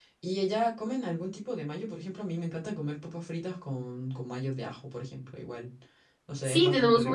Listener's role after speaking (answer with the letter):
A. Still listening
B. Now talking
B